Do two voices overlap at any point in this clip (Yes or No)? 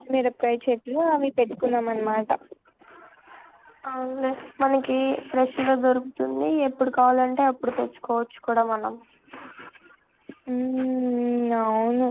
No